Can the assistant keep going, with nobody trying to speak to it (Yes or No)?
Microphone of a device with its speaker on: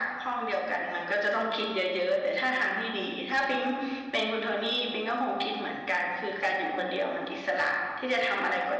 Yes